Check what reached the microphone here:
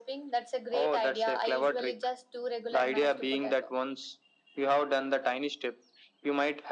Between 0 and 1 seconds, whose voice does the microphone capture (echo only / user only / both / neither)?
echo only